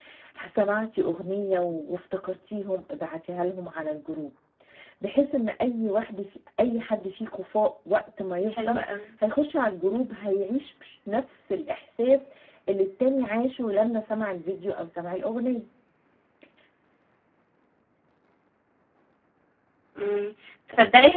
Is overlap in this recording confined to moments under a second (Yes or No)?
Yes